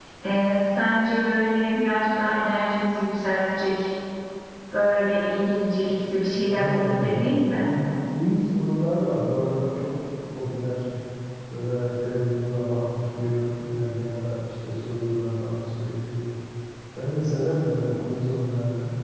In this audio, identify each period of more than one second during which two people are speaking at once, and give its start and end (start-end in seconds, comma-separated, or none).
6.5-7.7